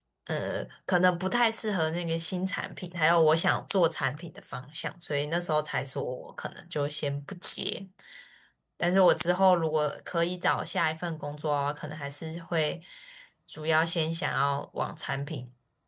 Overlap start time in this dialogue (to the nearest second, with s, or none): none